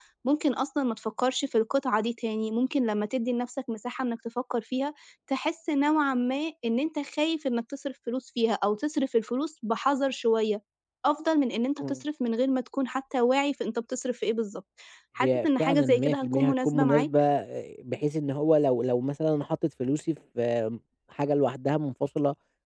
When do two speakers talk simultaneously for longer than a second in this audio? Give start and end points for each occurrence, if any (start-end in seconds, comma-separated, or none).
15.2-17.1